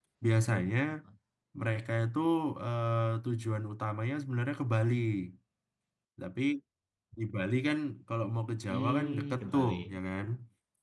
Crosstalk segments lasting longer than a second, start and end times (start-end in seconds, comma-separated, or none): 8.7-10.0